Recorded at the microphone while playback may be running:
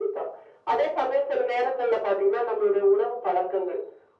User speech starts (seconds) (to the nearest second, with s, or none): none